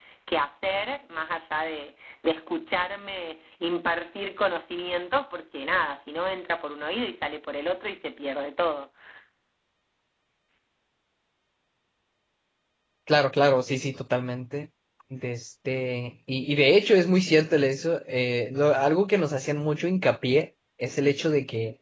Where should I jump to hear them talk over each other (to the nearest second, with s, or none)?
none